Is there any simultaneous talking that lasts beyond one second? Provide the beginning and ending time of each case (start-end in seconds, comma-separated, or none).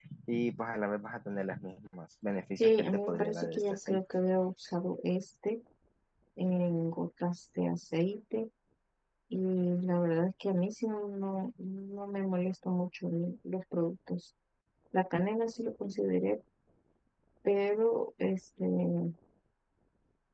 2.6-4.0